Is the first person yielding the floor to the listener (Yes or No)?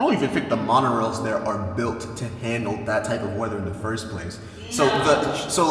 No